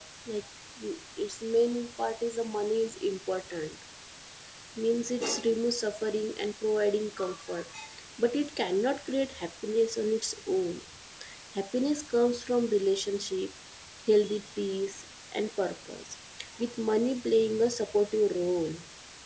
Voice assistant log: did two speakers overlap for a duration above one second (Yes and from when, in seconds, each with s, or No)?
No